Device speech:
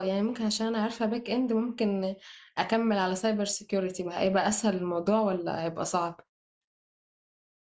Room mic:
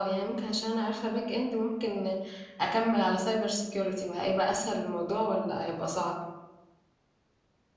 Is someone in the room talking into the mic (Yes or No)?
No